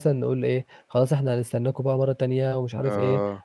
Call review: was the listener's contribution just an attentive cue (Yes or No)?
Yes